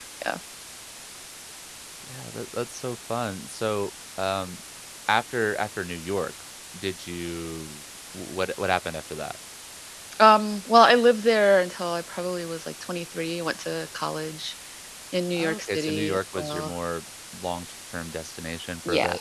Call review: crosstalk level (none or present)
present